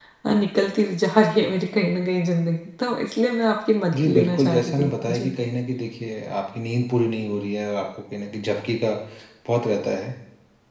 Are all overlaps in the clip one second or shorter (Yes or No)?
No